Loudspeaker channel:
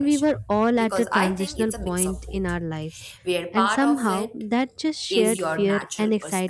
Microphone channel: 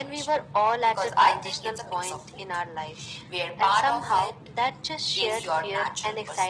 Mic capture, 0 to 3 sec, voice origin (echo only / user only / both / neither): echo only